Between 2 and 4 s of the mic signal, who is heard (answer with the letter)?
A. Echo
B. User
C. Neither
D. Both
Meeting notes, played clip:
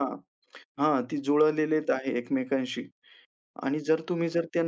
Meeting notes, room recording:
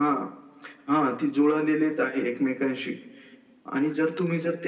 A